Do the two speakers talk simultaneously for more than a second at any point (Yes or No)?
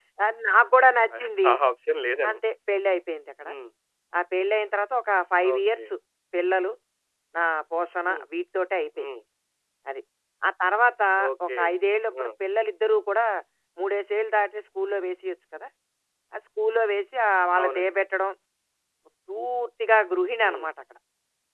No